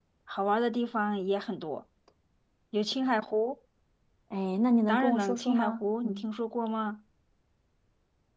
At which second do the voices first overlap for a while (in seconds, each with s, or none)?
4.9 s